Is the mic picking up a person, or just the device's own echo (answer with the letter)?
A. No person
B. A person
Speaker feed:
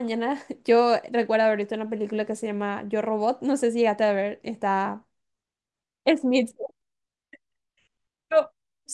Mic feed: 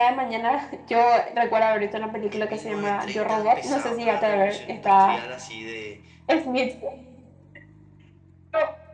B